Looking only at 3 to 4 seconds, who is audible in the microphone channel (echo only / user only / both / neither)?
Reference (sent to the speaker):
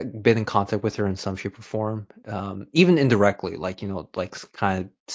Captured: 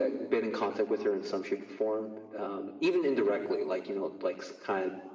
echo only